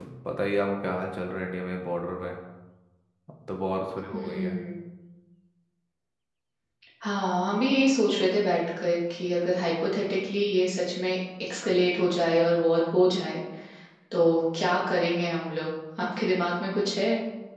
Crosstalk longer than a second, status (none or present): none